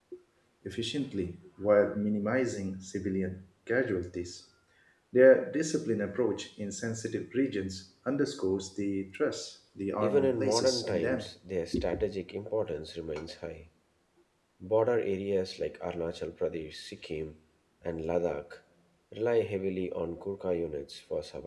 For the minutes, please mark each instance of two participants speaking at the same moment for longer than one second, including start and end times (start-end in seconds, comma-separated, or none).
10.0-11.2